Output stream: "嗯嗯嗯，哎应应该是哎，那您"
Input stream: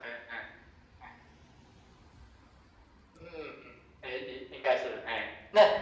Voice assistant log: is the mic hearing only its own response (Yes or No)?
Yes